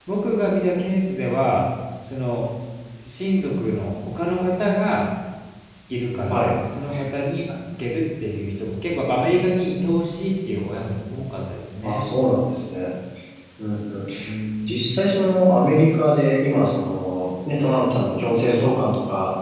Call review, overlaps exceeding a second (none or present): none